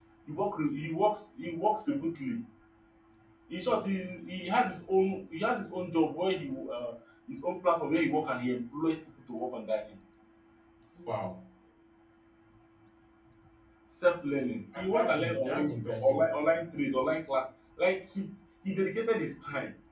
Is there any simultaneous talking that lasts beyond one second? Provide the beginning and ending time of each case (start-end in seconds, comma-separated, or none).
14.8-16.2